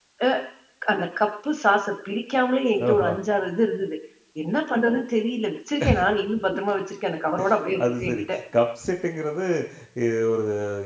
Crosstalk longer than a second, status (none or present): none